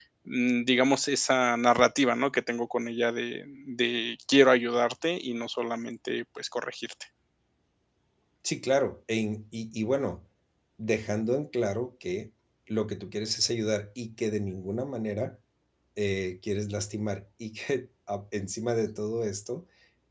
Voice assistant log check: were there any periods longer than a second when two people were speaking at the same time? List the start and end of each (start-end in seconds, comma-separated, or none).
none